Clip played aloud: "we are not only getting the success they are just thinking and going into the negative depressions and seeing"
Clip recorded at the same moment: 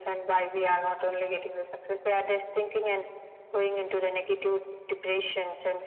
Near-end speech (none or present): none